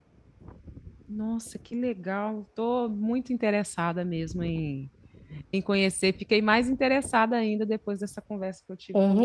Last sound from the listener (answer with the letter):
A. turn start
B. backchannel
A